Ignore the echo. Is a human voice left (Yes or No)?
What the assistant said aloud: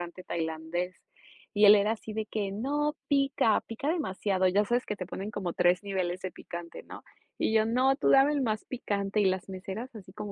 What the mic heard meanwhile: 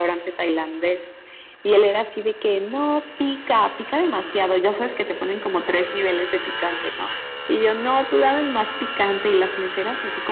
No